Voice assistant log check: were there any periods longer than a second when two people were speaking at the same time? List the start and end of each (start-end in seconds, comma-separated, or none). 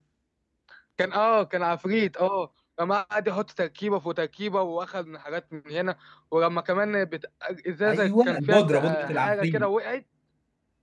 7.9-9.7